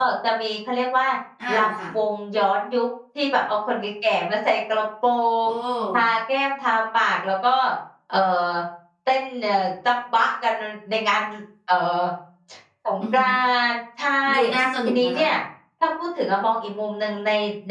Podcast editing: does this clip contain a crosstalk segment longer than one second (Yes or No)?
No